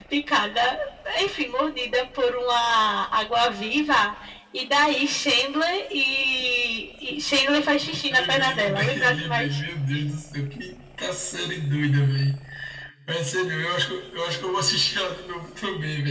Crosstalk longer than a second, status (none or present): present